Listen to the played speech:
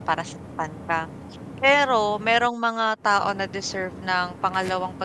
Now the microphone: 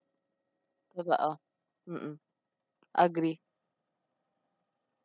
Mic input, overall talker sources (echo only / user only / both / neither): user only